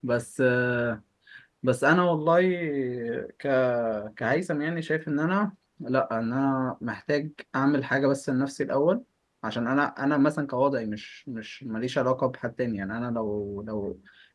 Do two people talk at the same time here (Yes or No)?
No